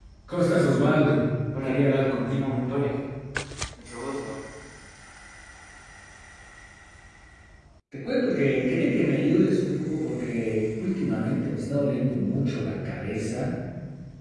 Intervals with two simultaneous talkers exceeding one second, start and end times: 1.6-2.9

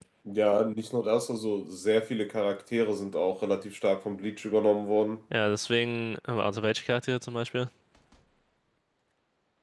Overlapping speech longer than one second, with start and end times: none

